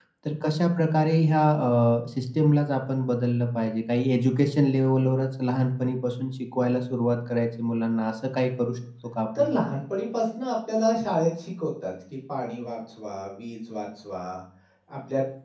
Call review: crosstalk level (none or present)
none